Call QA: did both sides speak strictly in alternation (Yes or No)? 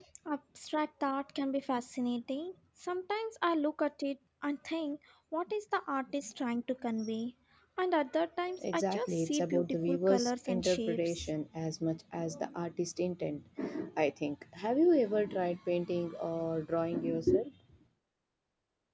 No